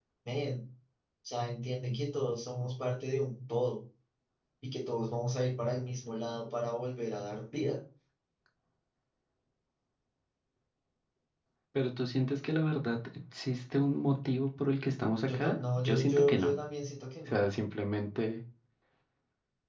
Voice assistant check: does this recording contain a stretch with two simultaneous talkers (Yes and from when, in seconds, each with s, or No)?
Yes, from 15.3 s